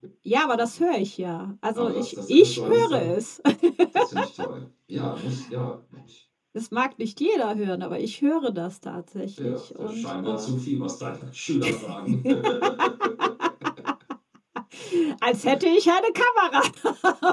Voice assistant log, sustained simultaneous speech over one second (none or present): present